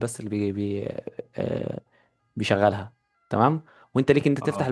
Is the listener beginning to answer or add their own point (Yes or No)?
No